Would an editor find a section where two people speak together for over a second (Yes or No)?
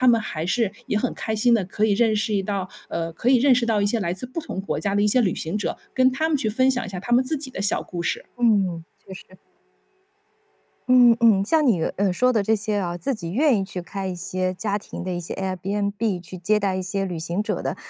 No